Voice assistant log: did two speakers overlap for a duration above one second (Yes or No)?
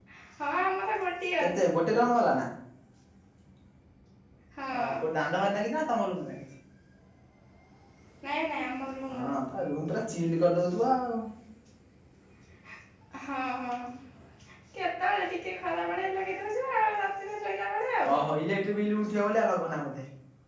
No